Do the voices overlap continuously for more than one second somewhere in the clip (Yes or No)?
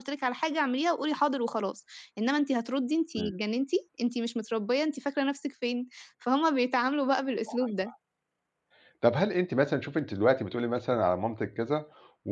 No